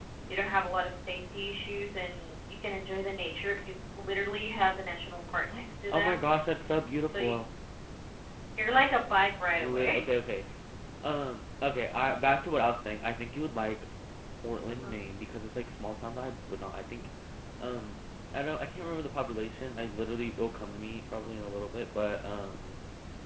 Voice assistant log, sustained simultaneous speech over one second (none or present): none